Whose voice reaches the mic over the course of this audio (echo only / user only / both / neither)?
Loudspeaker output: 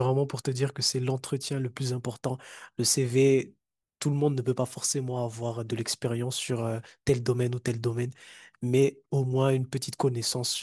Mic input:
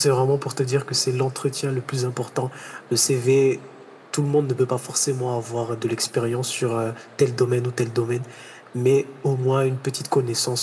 echo only